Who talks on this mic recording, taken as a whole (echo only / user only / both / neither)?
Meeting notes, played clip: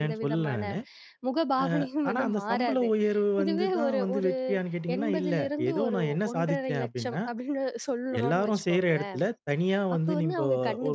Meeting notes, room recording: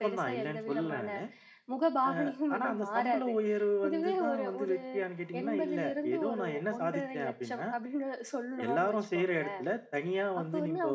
both